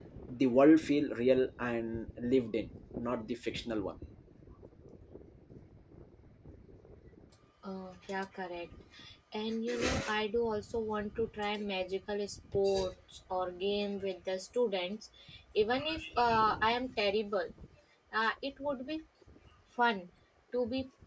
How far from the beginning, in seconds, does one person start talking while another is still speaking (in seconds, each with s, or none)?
none